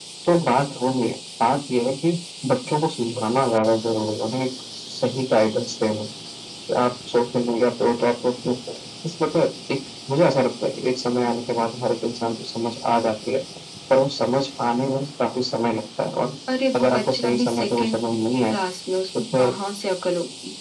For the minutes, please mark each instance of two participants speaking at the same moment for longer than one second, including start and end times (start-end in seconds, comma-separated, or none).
16.8-18.0